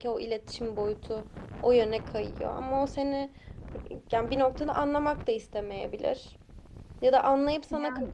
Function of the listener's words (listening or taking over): listening